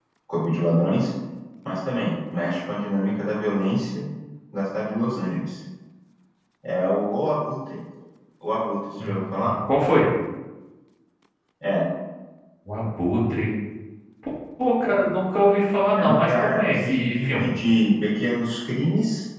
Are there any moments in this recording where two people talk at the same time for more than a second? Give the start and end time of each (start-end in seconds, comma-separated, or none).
15.9-17.5